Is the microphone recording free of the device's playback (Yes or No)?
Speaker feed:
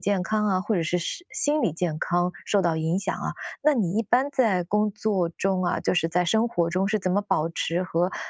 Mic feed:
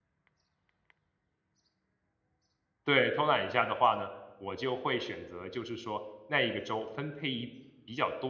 Yes